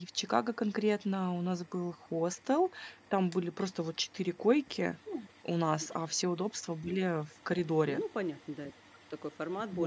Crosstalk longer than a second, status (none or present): none